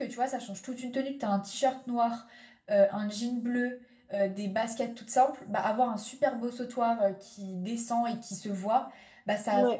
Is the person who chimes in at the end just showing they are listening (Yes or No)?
Yes